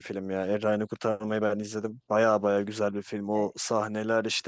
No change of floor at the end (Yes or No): Yes